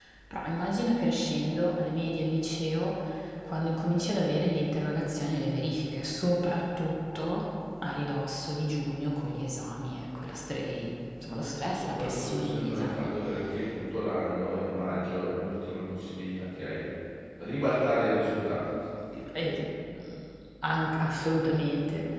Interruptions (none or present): present